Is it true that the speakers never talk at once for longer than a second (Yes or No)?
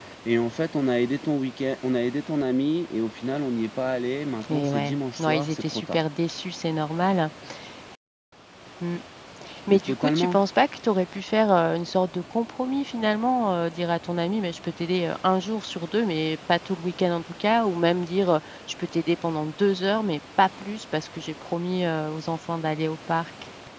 No